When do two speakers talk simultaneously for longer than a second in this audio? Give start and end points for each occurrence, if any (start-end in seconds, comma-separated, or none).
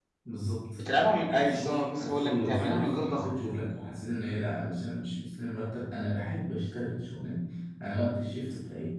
1.3-3.2